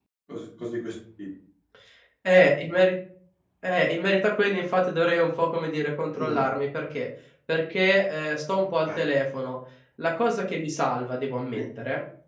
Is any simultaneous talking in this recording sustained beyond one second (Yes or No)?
No